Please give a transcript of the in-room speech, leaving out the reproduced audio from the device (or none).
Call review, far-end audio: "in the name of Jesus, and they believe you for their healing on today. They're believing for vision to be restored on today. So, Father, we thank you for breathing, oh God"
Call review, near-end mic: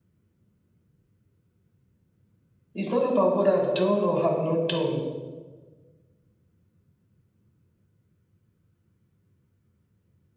It's not about what I've done or have not done.